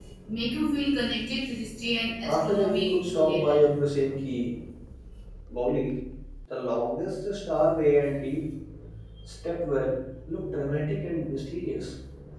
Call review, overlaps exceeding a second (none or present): present